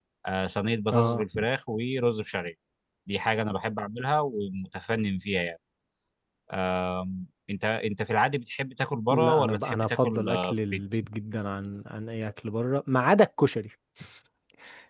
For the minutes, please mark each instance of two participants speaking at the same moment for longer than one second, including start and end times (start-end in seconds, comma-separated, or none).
9.1-10.8